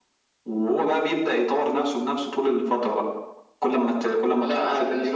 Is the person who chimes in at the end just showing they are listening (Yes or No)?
No